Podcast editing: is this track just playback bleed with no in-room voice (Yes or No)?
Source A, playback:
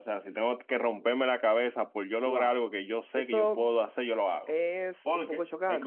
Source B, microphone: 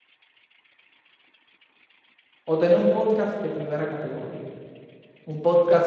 No